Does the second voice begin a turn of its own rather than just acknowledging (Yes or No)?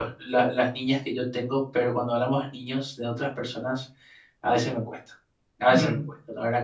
No